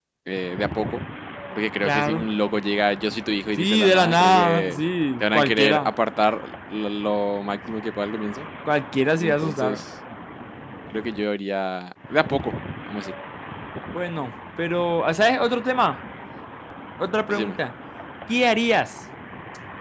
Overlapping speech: Yes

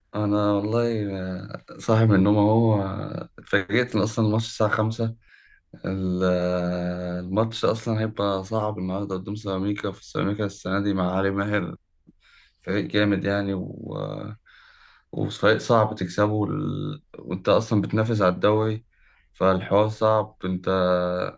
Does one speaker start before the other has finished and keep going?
No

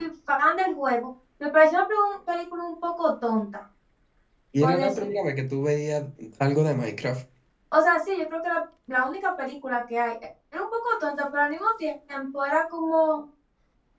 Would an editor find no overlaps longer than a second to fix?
Yes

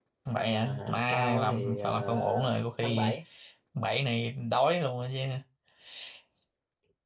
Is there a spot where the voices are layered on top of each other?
Yes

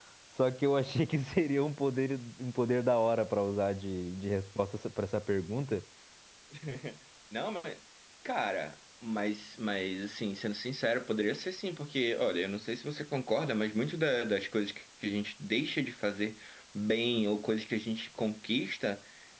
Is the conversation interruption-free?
Yes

